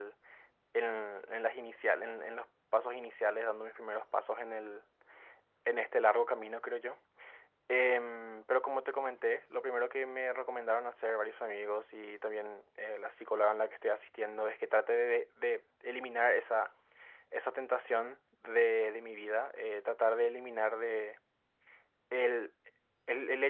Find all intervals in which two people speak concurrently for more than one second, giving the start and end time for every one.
none

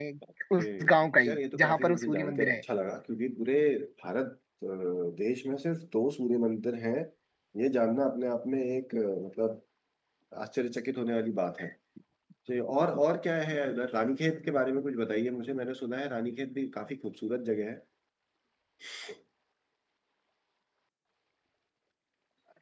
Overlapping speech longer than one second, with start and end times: 1.3-2.6

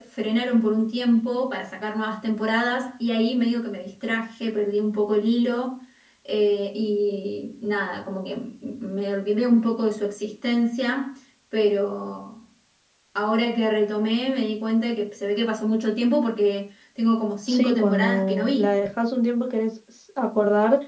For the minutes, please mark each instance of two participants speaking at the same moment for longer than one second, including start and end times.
17.5-18.7

